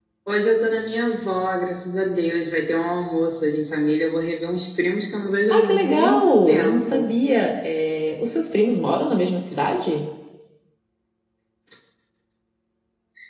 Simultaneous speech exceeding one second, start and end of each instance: 5.5-7.1

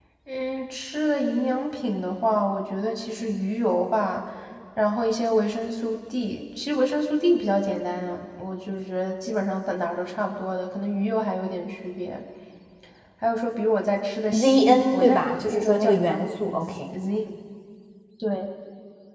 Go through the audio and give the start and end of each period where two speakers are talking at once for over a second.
14.4-16.8

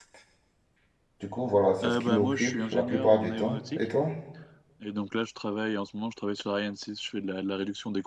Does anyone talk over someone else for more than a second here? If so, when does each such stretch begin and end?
1.8-3.8

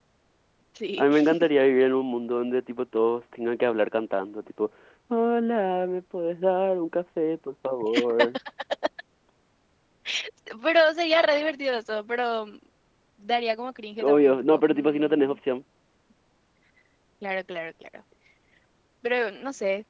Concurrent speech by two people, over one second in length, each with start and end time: 14.0-15.4

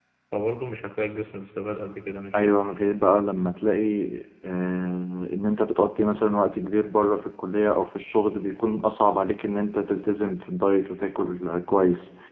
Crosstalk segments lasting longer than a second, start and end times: none

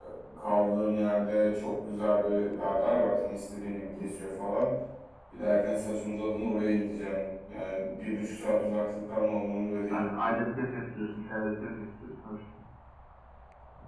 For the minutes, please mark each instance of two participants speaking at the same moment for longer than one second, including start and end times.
none

